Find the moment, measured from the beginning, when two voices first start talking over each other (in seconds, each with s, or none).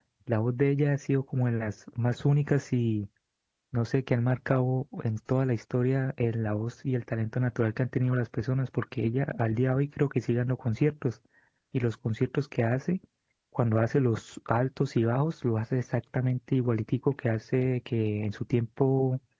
none